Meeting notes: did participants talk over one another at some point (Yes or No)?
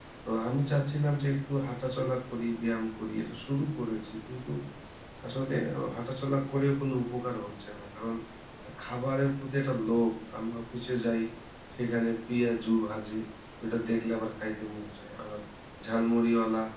No